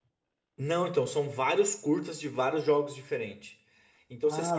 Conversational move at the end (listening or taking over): listening